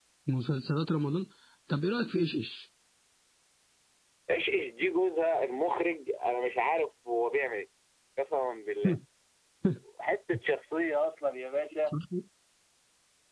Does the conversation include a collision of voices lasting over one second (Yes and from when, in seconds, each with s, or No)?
No